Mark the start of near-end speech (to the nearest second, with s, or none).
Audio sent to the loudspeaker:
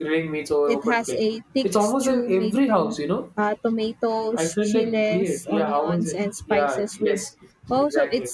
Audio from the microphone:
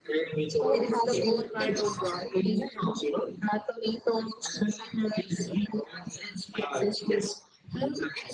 1 s